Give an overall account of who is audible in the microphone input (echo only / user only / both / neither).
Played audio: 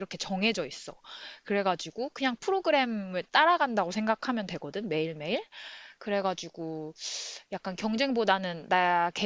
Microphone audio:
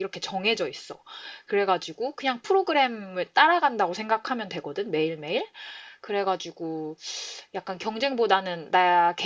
echo only